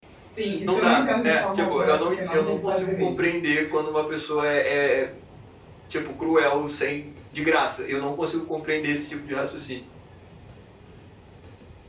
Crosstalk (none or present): present